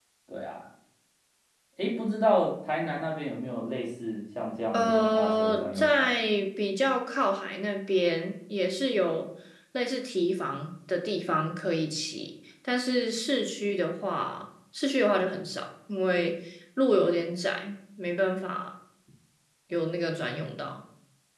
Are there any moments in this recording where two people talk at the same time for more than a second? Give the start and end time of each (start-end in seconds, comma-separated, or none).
4.7-6.1